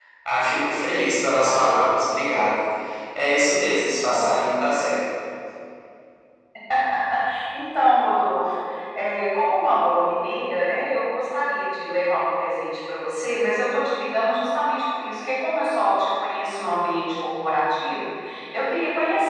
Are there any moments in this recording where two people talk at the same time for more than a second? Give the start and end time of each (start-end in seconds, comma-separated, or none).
none